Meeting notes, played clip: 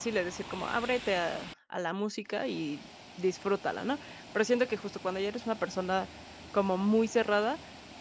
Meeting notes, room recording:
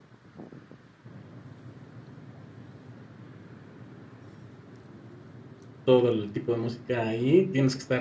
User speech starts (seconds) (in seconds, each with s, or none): 5.8 s